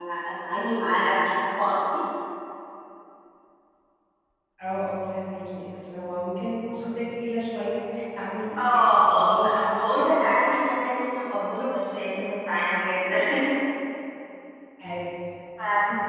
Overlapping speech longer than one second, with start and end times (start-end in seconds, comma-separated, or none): 8.6-10.1